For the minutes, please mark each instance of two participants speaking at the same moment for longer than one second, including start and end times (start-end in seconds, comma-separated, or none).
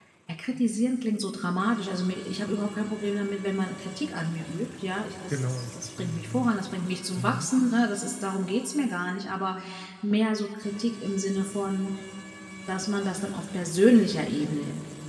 5.3-6.5